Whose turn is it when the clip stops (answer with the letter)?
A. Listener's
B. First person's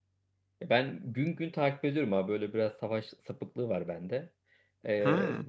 B